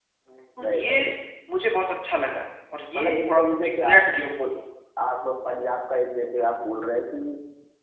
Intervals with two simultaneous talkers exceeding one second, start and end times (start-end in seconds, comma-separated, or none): 3.0-4.2